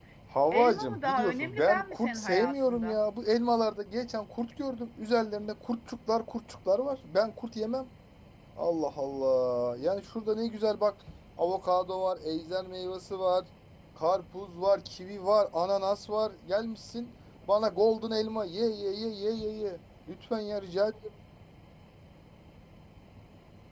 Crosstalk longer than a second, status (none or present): present